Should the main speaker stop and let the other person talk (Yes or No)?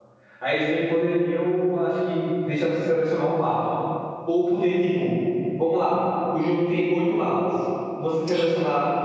No